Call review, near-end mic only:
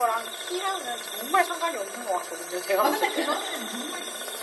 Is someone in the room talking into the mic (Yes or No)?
Yes